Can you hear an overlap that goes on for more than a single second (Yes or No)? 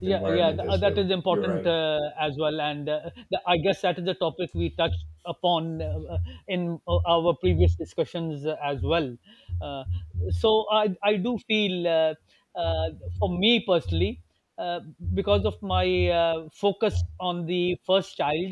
Yes